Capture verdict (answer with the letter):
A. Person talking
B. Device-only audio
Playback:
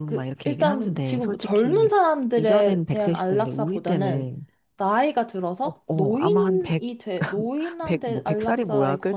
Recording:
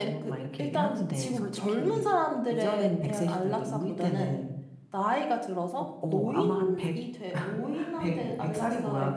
B